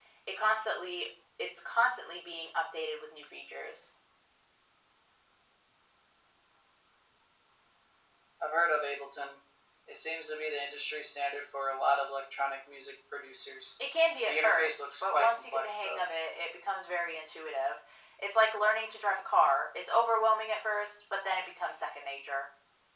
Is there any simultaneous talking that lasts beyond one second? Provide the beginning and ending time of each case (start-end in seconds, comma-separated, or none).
14.3-16.0